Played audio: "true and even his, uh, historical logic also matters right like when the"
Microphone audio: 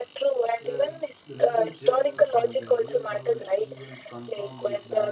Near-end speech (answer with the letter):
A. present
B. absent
A